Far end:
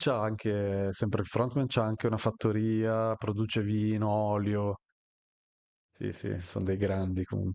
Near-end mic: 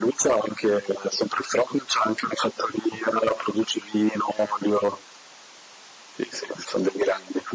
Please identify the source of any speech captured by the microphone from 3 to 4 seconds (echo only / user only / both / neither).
echo only